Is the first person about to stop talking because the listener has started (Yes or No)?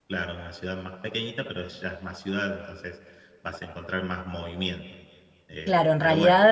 Yes